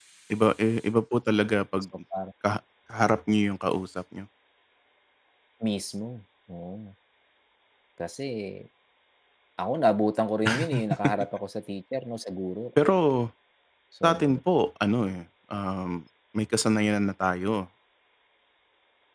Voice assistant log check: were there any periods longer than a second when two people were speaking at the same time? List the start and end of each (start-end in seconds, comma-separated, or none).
none